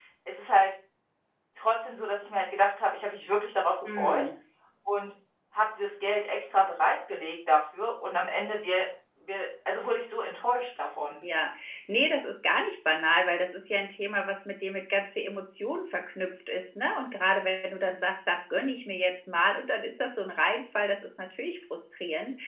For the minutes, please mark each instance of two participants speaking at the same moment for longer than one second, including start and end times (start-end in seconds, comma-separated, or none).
none